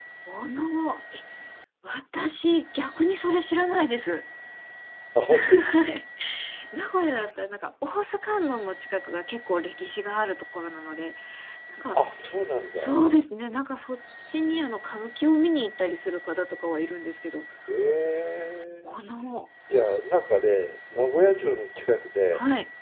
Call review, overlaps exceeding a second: none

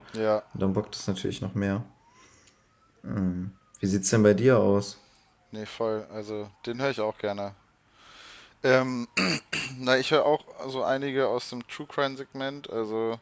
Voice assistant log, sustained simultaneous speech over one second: none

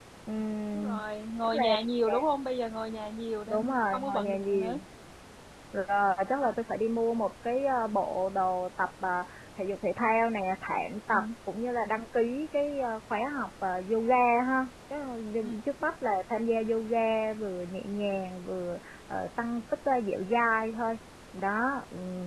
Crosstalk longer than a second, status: present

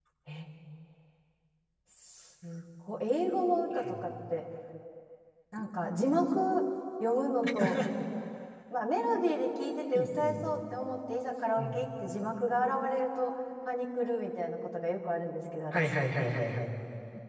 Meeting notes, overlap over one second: none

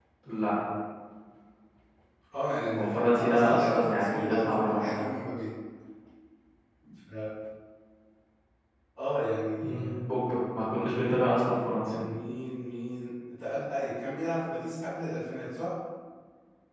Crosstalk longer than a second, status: present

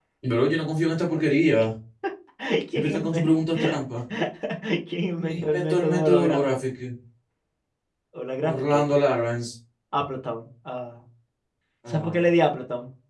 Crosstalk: present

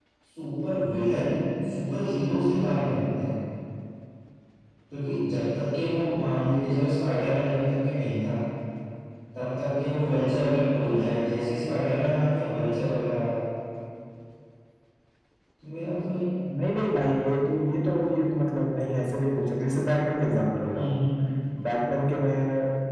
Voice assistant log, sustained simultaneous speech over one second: none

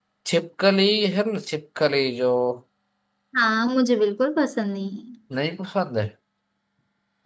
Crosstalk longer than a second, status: none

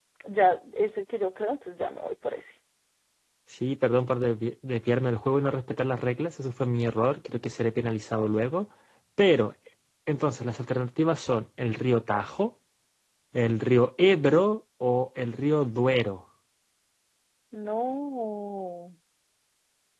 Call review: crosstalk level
none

